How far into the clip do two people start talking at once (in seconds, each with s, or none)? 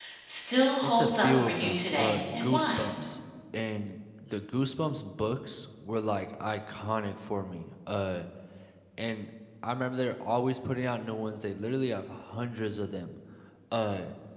0.8 s